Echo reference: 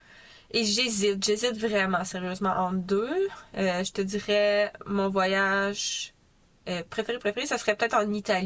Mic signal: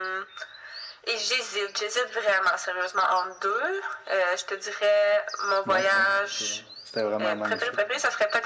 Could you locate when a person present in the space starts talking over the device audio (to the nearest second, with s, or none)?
6 s